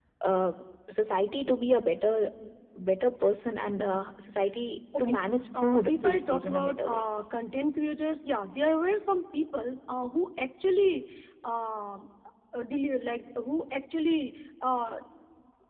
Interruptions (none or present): present